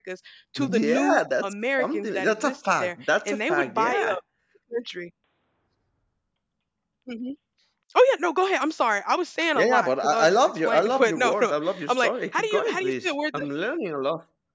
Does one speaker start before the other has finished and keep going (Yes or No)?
Yes